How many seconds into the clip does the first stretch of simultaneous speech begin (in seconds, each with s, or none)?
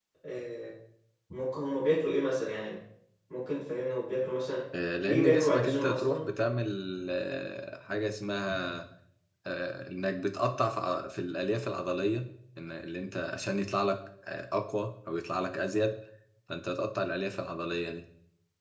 5.0 s